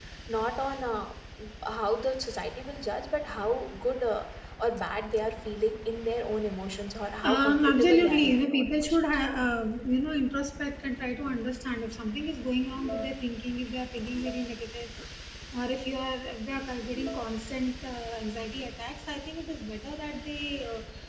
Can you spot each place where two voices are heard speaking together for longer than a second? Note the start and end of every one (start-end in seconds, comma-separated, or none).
7.2-9.0